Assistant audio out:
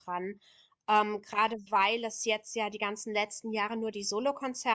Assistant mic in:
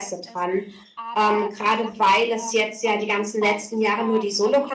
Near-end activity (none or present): present